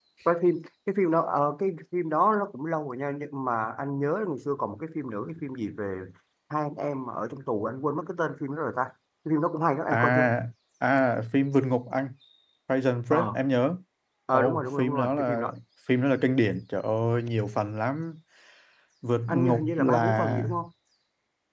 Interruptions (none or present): present